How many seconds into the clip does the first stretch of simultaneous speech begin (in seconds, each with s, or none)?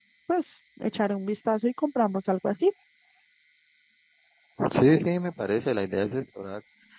none